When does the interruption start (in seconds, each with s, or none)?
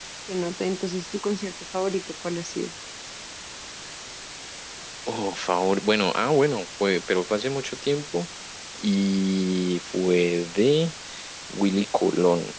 none